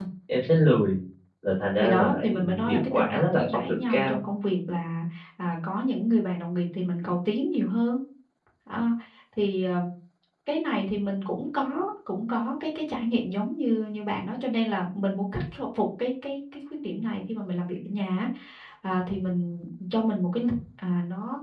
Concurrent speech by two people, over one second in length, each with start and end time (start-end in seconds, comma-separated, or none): 1.8-4.2